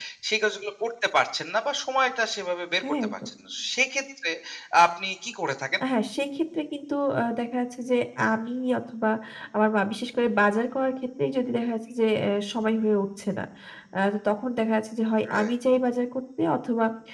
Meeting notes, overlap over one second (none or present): none